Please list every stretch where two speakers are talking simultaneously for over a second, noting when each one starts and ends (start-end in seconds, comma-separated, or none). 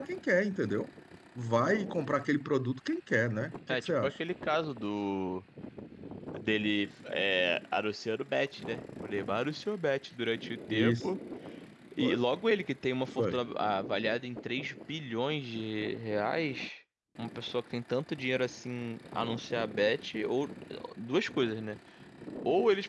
none